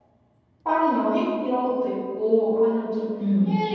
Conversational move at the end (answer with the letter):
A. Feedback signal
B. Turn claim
A